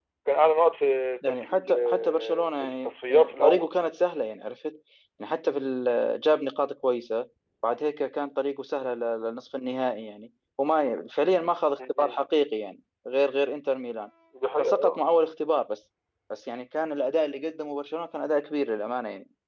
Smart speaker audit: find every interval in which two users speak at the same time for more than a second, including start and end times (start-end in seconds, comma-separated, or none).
1.3-3.7